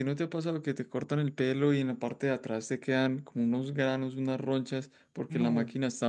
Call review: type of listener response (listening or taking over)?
listening